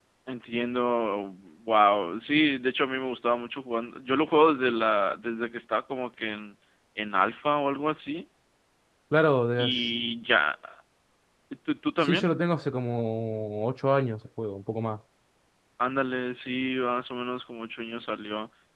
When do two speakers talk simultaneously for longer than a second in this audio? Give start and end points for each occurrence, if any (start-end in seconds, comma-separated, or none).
none